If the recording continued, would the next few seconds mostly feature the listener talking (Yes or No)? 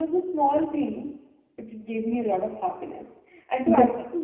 No